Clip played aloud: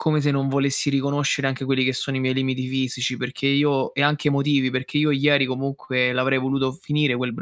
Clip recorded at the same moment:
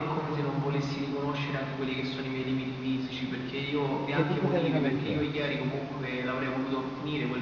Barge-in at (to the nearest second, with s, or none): 4 s